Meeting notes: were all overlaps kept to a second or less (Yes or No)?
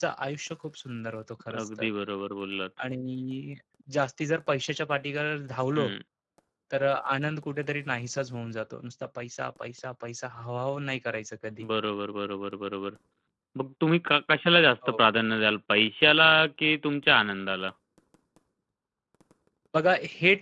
Yes